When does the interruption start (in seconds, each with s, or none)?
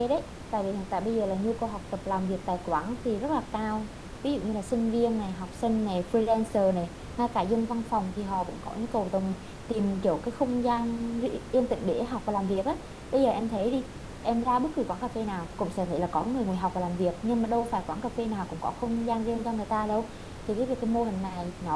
none